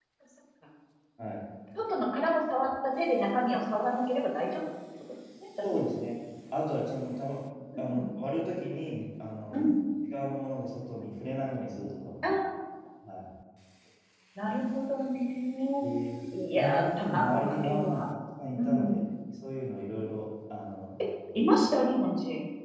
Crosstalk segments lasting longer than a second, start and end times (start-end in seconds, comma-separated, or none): 16.5-18.0